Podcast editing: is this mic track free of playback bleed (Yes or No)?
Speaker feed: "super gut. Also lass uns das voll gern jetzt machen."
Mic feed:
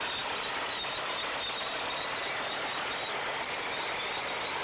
Yes